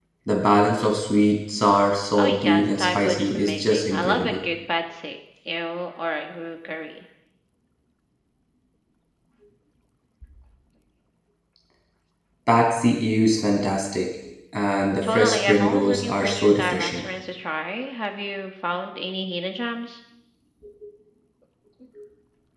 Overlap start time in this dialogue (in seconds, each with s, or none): 2.2 s